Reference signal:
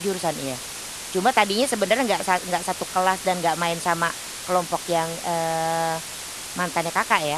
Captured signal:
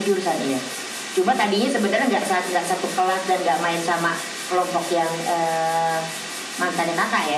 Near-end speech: none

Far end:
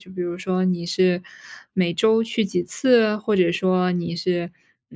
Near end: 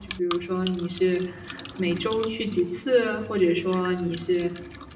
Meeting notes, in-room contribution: none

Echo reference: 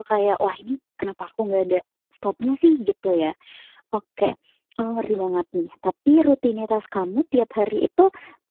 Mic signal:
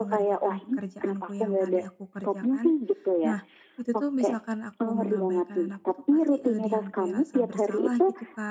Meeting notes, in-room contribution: present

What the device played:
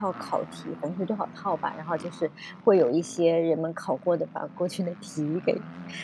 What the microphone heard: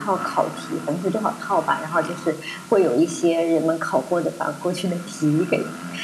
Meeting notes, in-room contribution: none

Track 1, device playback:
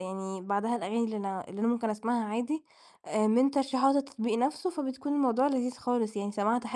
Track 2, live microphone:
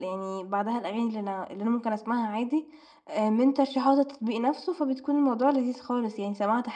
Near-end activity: none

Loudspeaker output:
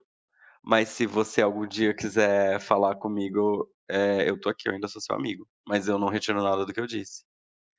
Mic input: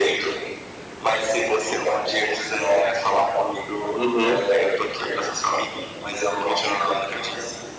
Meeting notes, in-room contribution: present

